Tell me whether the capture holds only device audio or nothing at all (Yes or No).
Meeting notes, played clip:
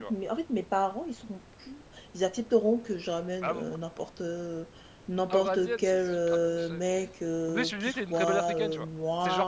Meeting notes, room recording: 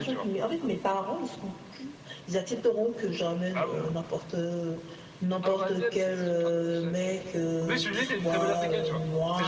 Yes